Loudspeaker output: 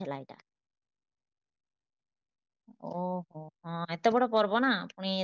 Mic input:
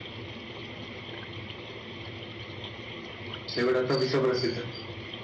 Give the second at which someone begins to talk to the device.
3.5 s

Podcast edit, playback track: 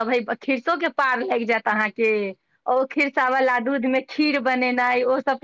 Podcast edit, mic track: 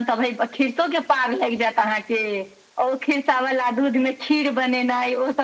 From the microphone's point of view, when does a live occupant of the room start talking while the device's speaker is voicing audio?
none

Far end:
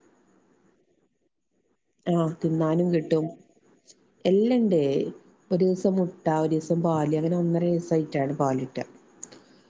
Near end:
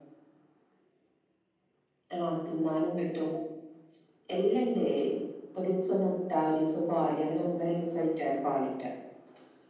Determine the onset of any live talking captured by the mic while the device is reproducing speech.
none

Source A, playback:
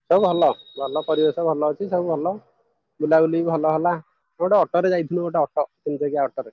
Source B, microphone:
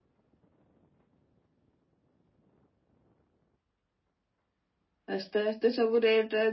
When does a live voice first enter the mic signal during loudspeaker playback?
5.2 s

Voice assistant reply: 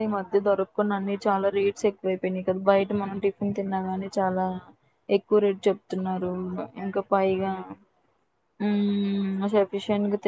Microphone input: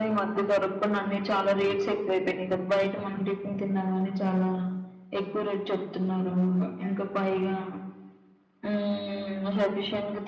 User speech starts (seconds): none

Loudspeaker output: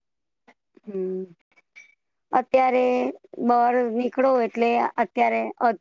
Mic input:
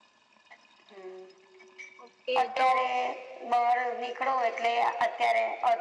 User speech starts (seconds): 2.0 s

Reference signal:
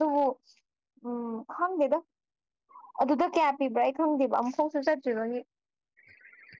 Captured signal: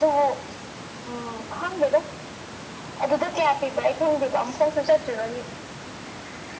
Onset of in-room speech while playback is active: none

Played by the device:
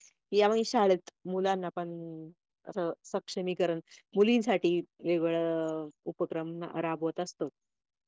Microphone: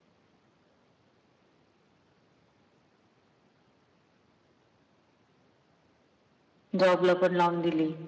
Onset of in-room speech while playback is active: 6.8 s

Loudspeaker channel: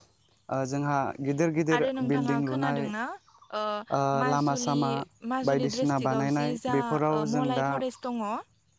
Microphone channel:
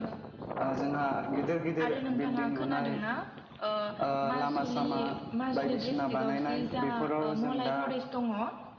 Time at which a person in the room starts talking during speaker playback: none

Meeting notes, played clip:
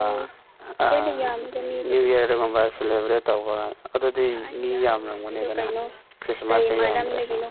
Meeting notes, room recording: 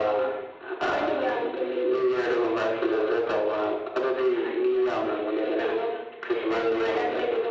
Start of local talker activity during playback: none

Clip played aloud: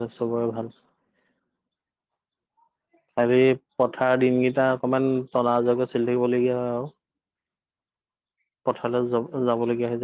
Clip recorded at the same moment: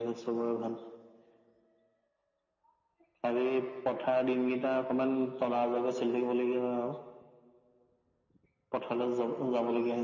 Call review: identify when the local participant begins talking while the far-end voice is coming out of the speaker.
none

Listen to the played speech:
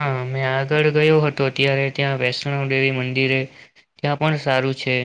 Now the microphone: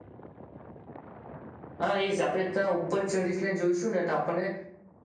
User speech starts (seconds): 1.9 s

